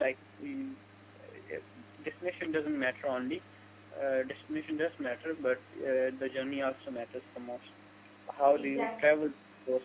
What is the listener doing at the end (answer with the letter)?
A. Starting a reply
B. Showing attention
B